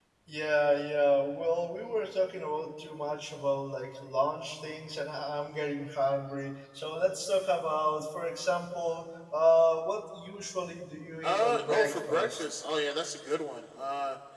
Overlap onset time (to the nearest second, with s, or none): 11 s